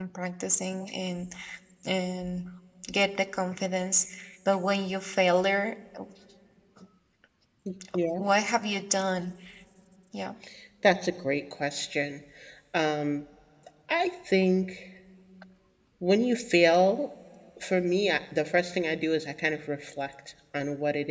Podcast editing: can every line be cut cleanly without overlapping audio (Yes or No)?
Yes